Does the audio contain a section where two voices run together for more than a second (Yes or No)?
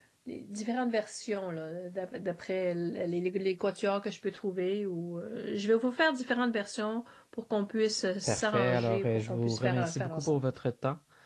Yes